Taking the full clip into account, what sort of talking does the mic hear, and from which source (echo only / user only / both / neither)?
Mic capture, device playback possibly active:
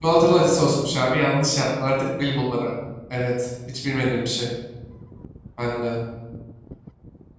user only